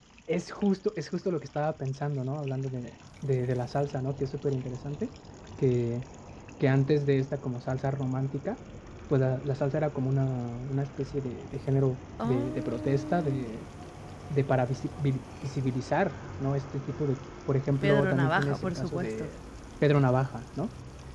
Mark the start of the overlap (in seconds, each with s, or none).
12.2 s